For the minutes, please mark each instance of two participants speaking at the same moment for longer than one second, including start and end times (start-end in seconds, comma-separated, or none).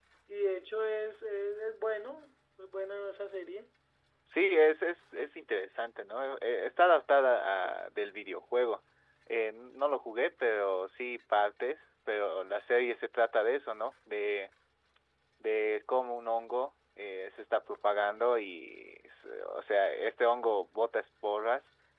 none